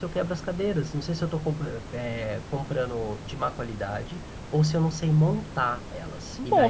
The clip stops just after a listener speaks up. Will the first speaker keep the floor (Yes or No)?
No